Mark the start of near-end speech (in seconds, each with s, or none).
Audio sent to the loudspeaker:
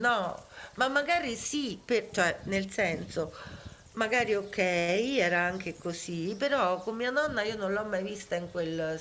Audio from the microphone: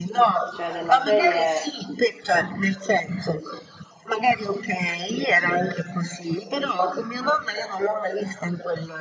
0.5 s